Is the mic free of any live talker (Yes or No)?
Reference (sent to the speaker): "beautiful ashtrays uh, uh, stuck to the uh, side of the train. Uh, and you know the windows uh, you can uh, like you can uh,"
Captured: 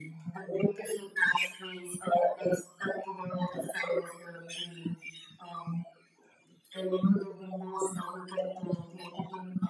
Yes